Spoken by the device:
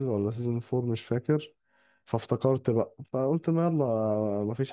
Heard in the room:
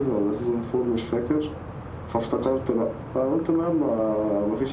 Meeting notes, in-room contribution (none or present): none